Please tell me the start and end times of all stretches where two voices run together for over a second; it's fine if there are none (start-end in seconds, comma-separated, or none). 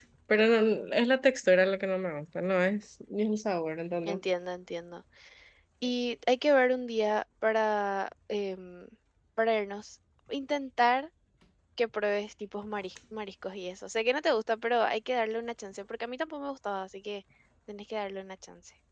none